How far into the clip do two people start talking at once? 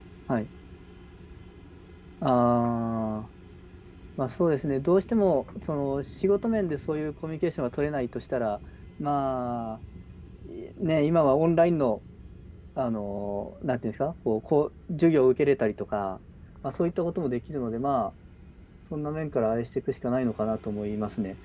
none

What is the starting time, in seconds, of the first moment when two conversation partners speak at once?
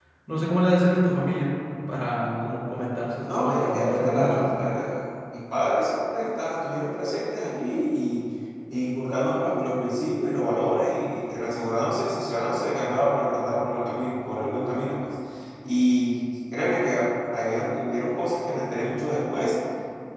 3.3 s

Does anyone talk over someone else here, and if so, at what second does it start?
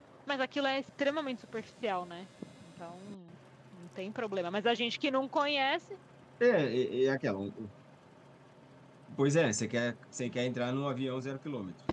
none

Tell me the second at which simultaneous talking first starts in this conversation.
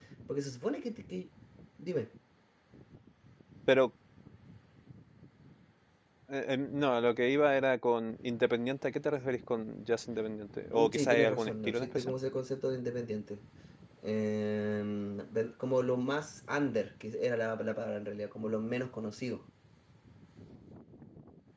10.7 s

